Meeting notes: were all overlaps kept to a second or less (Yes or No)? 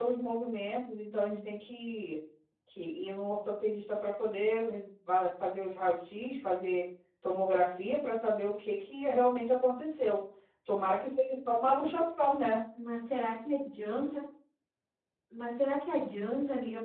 Yes